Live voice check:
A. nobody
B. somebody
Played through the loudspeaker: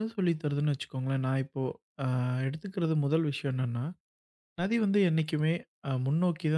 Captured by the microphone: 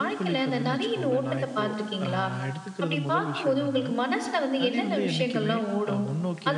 B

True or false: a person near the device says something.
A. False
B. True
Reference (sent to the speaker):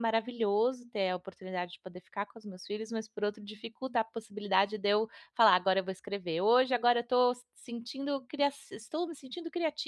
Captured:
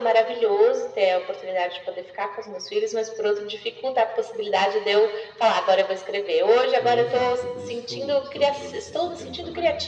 B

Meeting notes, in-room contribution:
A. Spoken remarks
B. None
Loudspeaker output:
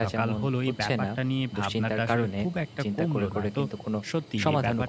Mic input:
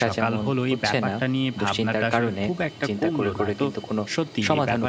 B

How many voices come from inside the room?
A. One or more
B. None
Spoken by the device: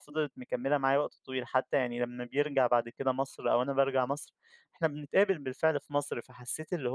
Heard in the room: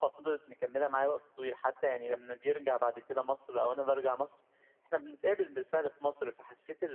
B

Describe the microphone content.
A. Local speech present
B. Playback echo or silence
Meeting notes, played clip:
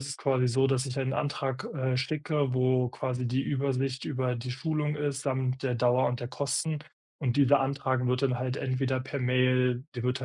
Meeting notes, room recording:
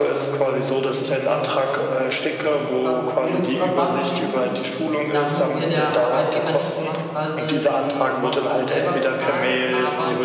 A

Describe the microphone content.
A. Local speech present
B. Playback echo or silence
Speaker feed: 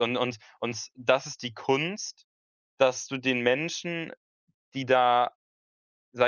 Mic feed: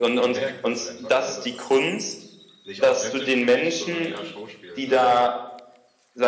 A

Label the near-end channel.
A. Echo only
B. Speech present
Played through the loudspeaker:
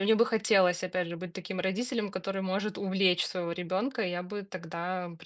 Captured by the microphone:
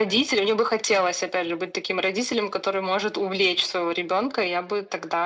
A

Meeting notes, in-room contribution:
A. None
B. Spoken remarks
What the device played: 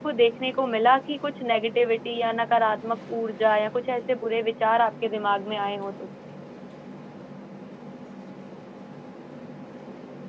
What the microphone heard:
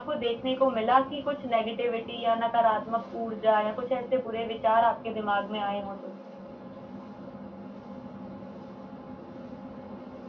A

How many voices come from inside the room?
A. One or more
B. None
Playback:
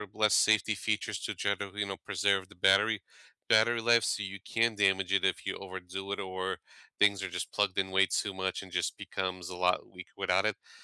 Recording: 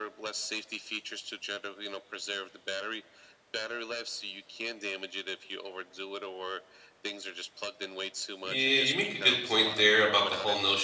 A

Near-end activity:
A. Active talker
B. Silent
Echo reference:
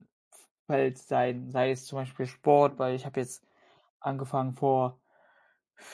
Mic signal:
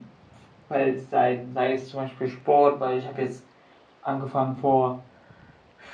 B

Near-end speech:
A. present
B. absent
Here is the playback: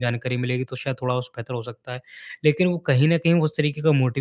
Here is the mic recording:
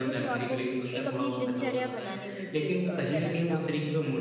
A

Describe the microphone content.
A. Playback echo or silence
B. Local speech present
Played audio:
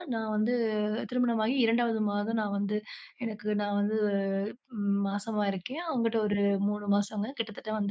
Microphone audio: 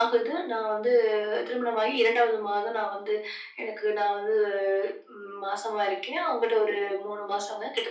A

